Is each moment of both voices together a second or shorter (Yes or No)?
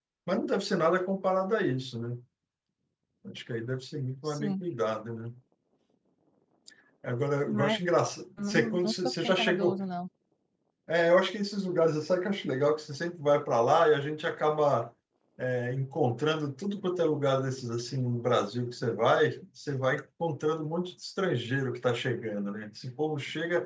No